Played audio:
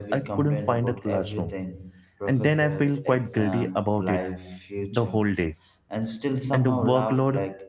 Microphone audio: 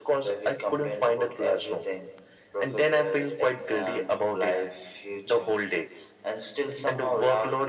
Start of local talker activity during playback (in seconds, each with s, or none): none